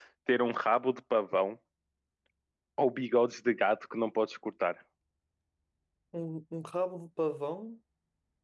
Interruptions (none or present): none